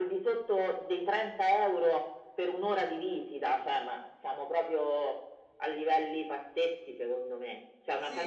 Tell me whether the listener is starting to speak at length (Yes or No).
Yes